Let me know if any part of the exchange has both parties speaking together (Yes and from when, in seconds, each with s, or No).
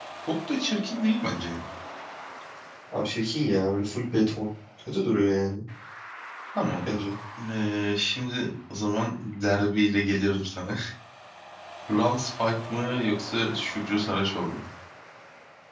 No